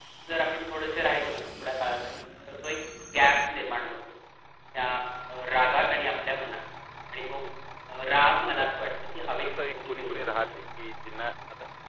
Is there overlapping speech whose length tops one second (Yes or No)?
Yes